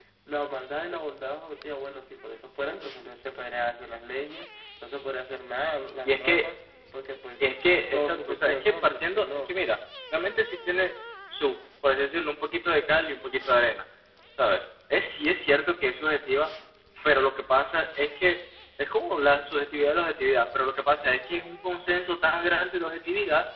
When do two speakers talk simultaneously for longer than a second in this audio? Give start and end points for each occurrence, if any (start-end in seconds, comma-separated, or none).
7.9-9.6